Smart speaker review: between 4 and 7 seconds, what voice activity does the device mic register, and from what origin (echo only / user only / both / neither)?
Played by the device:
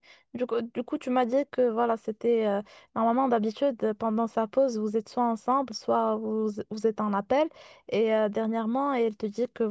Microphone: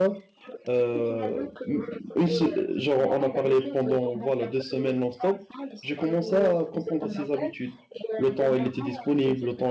both